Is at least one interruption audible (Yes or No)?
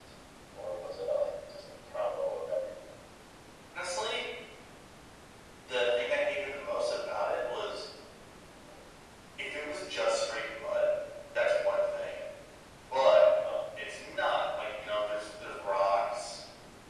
No